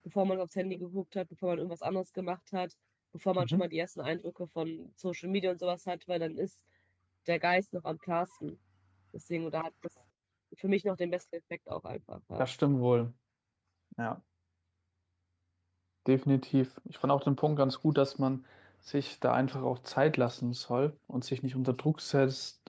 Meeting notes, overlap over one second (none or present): none